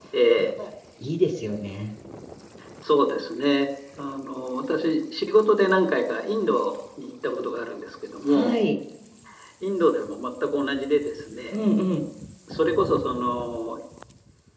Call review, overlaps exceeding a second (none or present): none